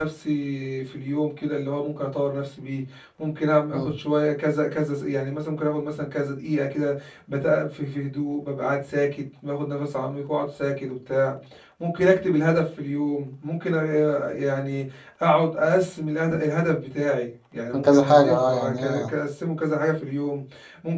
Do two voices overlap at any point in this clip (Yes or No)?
Yes